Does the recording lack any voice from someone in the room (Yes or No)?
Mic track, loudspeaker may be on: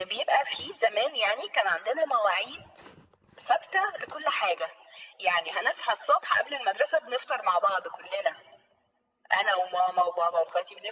Yes